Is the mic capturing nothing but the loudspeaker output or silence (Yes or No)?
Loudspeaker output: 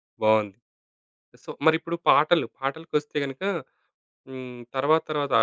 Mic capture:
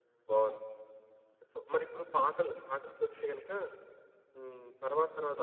Yes